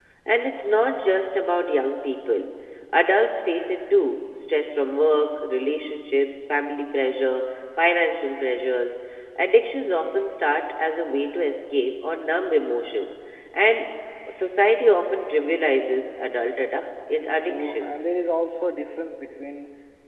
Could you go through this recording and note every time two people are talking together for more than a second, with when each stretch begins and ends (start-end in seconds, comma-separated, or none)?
none